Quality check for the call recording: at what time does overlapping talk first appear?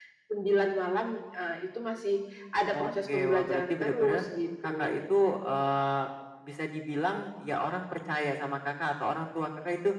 2.7 s

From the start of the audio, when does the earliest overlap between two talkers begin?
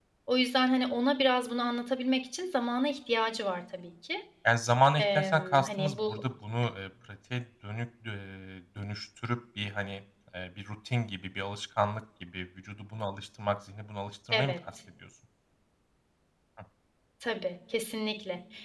5.0 s

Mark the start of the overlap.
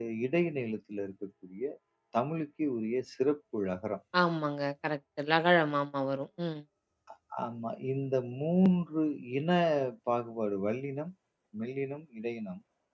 none

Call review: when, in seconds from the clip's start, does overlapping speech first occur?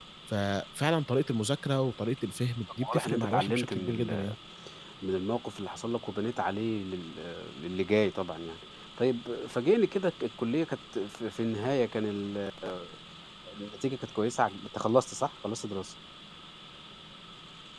2.8 s

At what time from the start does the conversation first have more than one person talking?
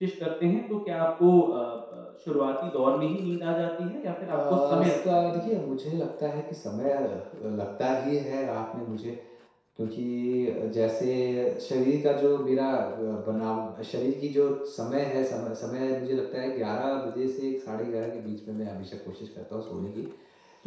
4.2 s

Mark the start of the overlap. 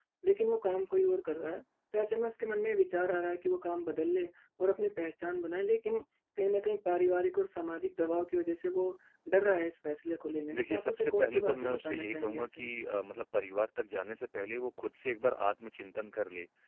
10.5 s

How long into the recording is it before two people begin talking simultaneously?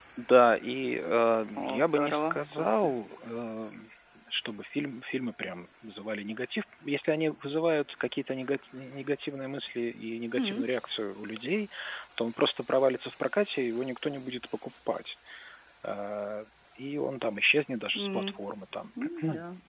1.6 s

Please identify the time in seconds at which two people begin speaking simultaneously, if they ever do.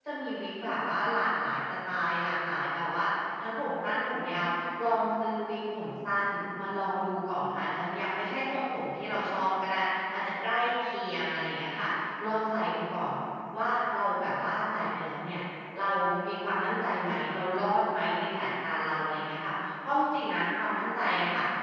none

